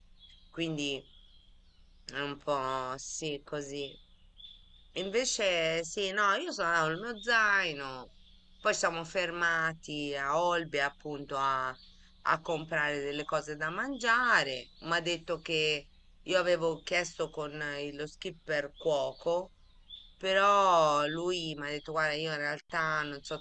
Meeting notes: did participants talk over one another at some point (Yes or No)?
No